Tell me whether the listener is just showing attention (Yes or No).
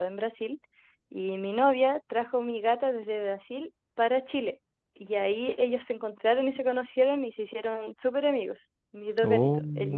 Yes